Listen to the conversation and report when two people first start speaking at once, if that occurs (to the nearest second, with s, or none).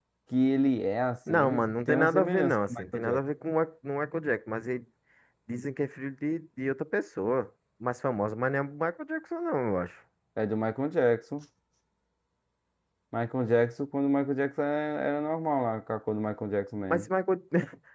1 s